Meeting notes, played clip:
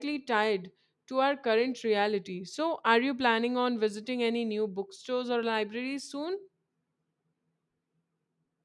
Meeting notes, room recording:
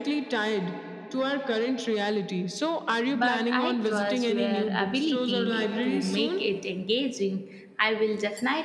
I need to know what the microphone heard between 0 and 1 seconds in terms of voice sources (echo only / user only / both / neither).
echo only